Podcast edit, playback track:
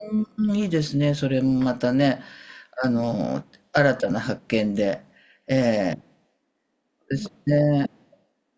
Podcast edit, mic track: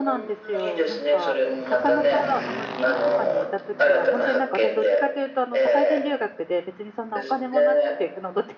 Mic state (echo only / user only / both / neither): both